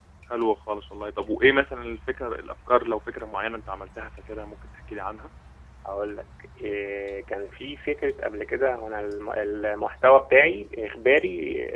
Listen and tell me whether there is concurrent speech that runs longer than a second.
No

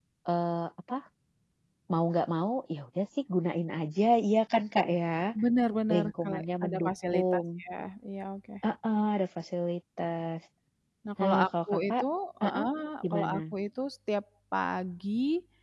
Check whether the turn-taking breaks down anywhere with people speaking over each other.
Yes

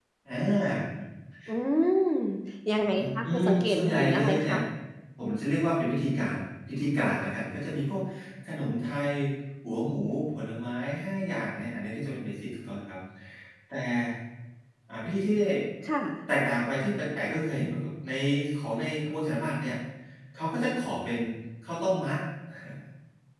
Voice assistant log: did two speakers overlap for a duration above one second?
Yes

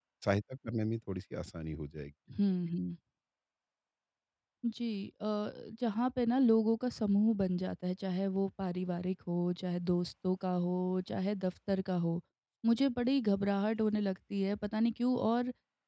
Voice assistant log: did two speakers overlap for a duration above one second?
No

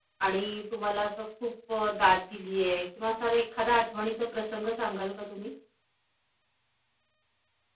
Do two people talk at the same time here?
No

